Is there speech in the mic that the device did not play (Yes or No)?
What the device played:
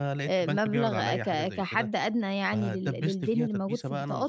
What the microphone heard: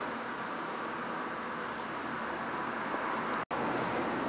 No